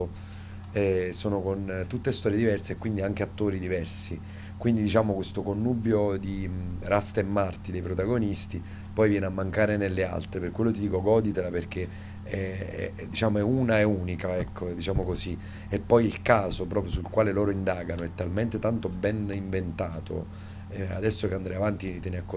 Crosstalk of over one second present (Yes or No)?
No